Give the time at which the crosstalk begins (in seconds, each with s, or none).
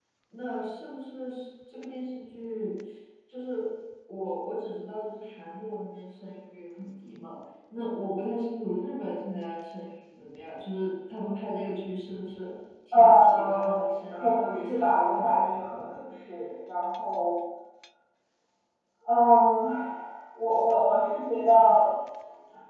12.9 s